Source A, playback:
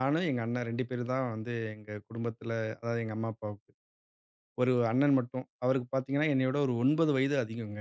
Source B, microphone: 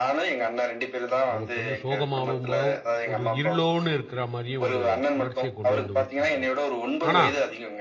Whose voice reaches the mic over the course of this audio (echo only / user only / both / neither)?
both